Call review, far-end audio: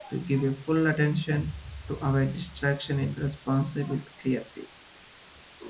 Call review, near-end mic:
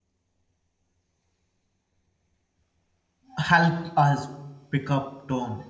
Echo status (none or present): none